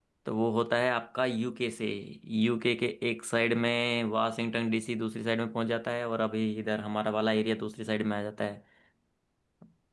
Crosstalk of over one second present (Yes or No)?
No